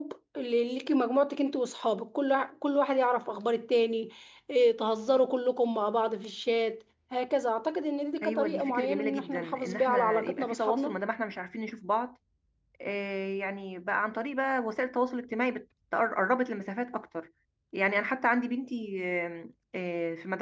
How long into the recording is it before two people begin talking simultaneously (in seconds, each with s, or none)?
8.2 s